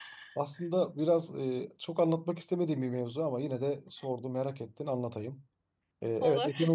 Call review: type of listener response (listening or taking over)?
listening